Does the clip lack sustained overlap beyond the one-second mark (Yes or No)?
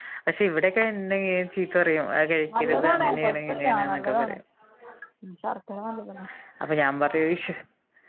No